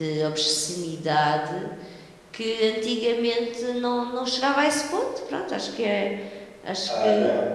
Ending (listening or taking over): taking over